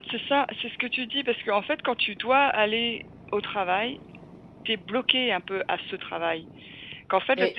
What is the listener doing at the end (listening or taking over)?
listening